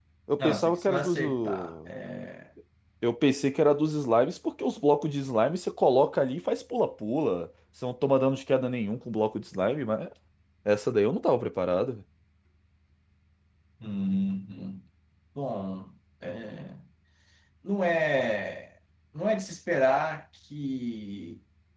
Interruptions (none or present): present